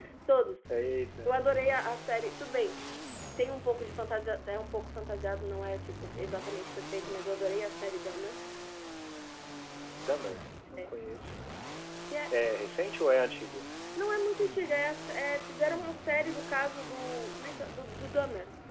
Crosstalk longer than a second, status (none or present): none